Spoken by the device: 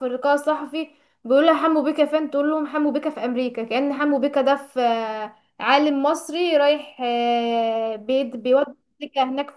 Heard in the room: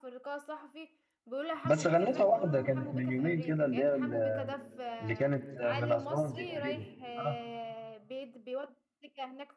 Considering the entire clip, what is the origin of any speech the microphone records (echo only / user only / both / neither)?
both